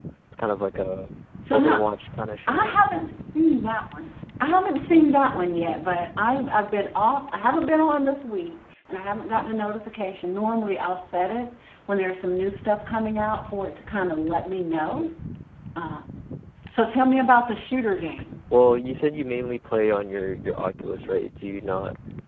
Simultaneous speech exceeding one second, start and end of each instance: none

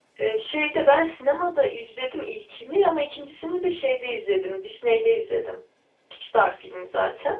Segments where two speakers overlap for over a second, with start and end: none

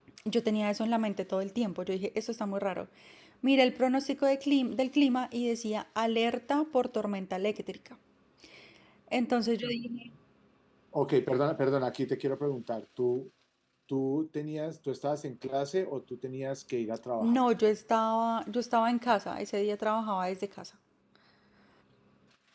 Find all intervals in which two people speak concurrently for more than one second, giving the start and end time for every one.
none

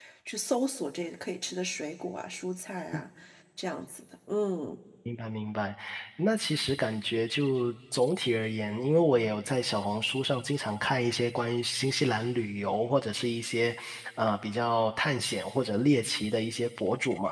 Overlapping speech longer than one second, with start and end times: none

